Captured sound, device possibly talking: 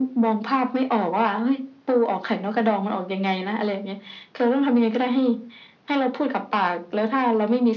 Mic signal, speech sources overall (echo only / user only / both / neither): echo only